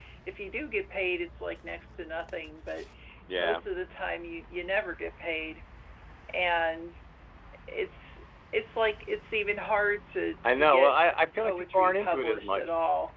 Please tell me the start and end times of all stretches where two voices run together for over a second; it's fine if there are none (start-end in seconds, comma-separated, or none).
11.4-12.6